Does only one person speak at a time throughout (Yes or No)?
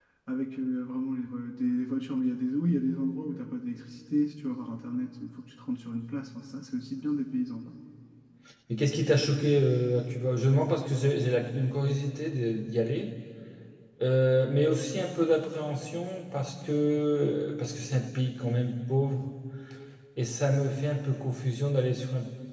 Yes